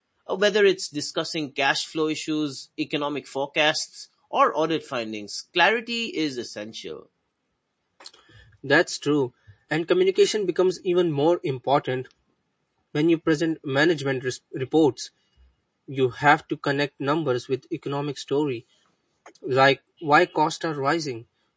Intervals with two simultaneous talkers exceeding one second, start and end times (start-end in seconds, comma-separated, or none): none